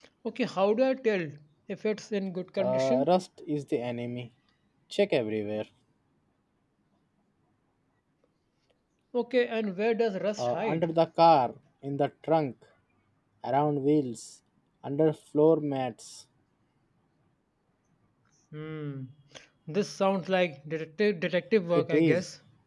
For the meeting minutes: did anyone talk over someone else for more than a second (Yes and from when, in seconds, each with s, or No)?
No